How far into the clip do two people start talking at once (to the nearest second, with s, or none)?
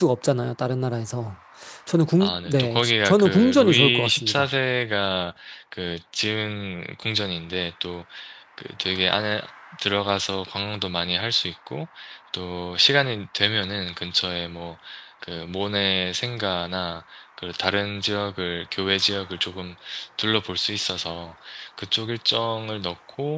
2 s